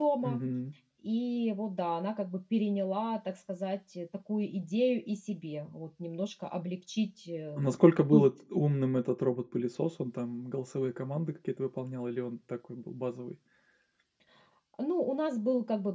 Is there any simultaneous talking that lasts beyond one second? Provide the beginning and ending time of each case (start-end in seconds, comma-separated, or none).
none